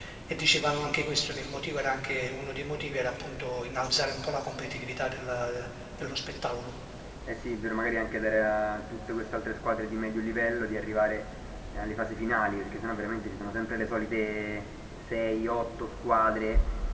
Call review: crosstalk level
none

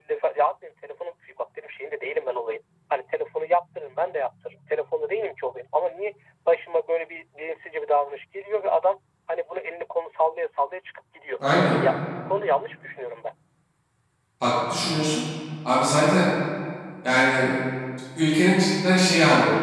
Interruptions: none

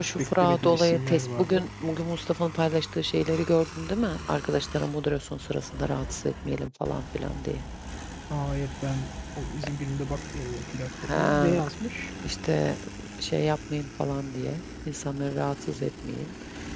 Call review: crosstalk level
present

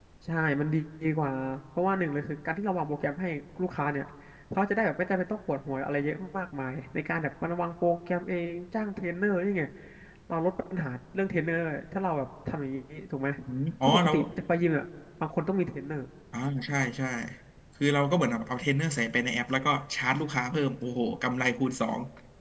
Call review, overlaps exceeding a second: none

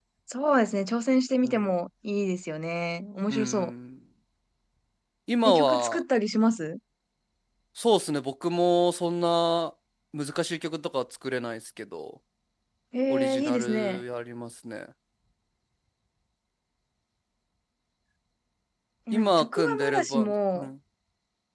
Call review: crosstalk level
present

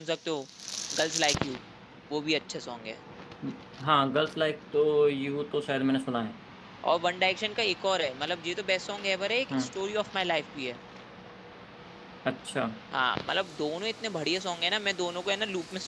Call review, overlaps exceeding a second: none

